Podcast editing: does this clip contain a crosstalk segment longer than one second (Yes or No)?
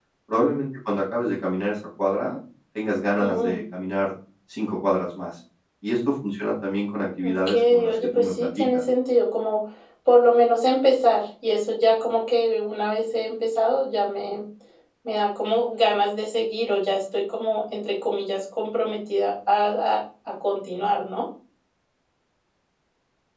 Yes